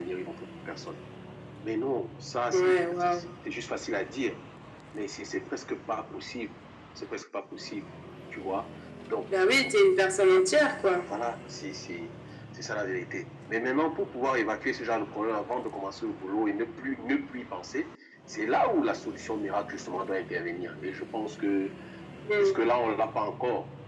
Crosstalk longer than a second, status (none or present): none